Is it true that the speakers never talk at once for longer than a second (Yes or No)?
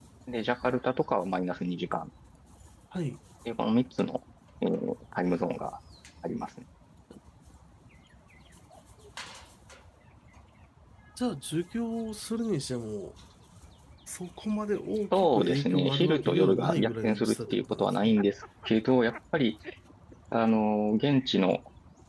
No